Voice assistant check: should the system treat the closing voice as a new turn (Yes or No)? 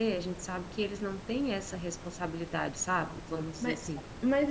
Yes